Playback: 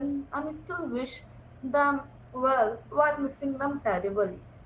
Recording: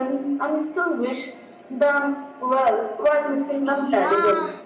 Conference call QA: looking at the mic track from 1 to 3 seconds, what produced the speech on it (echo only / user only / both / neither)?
echo only